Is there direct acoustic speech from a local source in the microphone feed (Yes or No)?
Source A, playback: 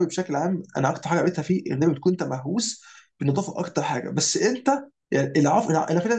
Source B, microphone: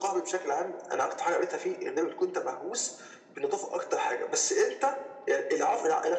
No